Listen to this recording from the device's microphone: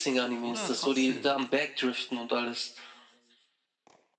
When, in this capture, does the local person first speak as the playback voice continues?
0.3 s

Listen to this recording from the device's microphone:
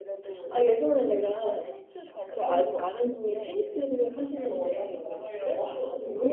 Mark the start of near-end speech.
3.6 s

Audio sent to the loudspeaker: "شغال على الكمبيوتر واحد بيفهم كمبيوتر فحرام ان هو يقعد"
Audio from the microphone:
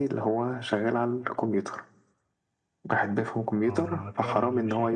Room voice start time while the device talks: 3.6 s

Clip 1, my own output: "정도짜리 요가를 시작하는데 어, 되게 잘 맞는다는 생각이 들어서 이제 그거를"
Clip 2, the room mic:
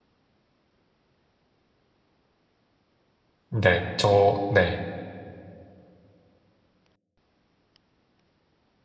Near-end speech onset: 3.5 s

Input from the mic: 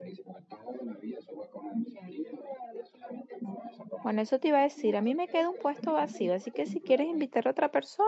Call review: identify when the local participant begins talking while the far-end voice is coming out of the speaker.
4.0 s

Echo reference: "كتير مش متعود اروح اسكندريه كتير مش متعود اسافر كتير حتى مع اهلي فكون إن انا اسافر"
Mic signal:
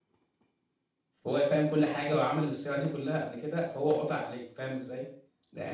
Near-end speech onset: 1.3 s

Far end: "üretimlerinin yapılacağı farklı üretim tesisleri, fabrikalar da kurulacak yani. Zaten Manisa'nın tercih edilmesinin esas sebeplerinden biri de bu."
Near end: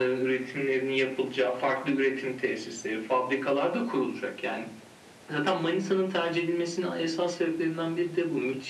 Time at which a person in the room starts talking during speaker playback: none

